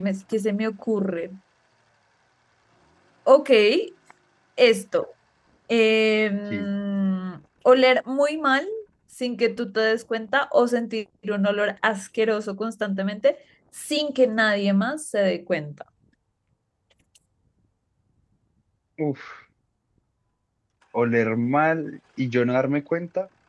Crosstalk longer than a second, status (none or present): none